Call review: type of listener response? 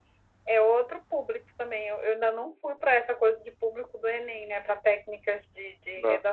listening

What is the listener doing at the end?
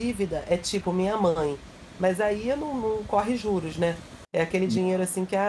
listening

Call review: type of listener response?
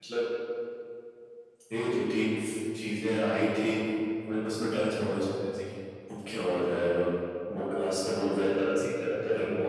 listening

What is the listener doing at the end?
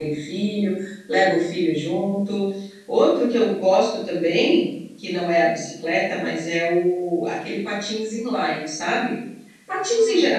listening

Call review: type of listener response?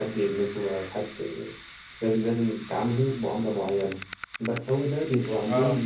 listening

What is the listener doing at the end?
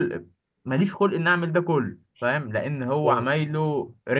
listening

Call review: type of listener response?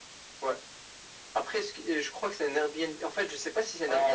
taking over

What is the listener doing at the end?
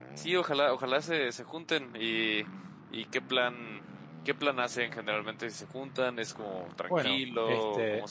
taking over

